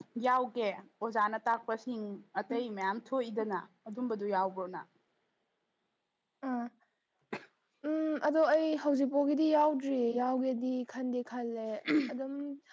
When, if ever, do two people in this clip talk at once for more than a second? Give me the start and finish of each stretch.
none

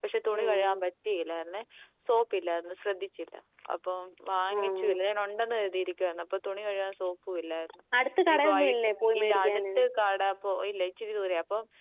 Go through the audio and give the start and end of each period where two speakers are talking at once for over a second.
8.3-9.6

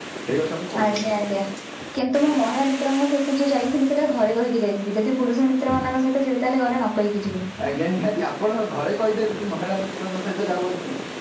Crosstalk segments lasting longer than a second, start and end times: none

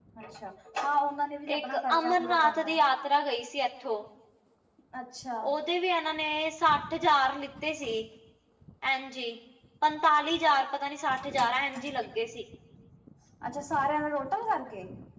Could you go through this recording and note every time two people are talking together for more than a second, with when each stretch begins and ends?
1.5-2.8

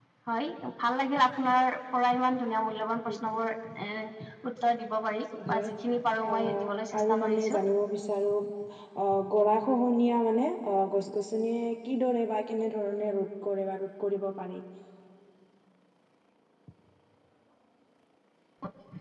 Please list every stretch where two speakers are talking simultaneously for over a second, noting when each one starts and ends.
6.3-7.6

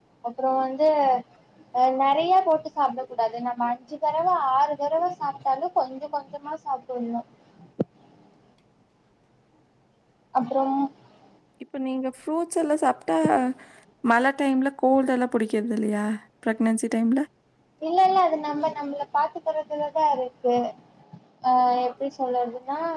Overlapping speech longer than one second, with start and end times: none

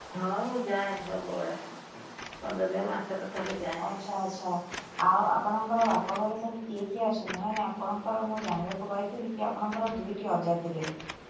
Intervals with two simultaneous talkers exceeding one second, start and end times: none

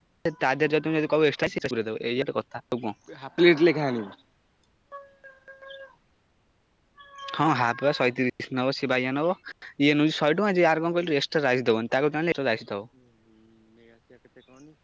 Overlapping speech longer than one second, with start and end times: none

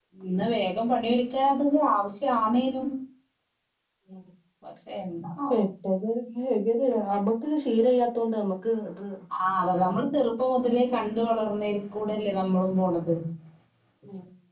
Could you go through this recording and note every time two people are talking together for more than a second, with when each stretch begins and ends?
none

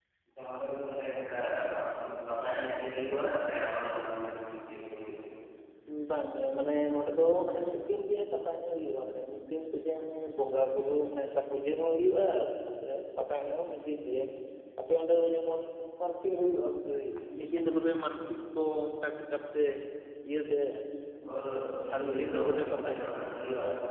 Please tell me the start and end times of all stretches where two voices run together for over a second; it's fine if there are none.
21.9-23.1

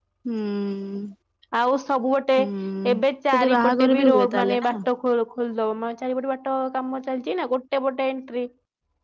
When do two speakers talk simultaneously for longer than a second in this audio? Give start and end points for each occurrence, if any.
3.3-4.7

